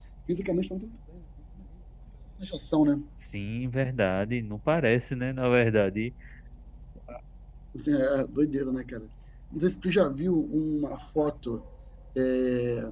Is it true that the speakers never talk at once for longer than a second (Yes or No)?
Yes